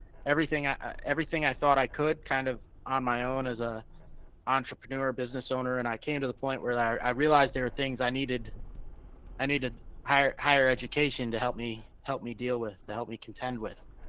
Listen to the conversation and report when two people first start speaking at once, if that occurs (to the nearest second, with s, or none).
none